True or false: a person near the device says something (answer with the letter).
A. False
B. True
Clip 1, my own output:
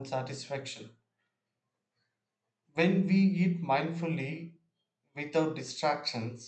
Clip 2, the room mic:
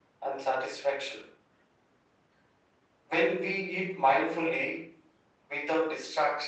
A